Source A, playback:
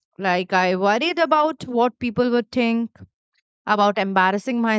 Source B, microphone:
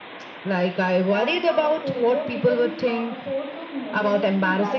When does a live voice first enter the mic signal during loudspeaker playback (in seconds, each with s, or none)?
1.0 s